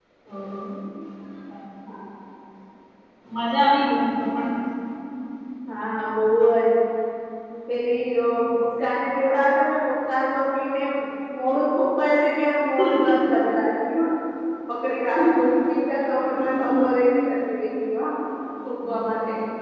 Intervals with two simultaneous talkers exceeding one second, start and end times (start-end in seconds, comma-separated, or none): none